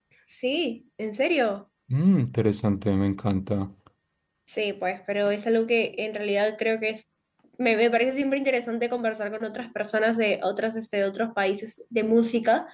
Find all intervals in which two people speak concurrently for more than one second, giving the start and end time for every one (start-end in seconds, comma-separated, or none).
none